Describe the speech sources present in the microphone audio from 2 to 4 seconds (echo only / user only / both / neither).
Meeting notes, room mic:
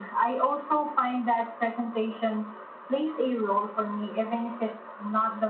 echo only